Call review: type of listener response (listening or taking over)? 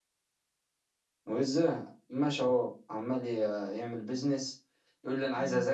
listening